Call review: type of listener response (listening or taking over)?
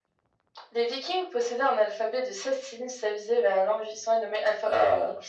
listening